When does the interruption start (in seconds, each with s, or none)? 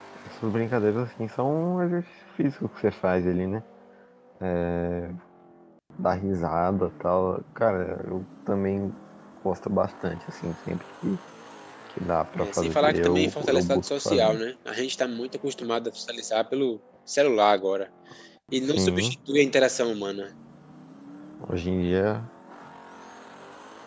12.4 s